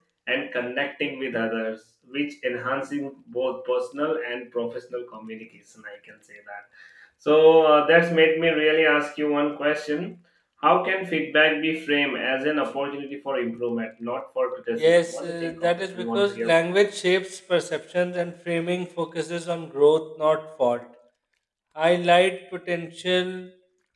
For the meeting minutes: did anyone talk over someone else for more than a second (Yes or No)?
Yes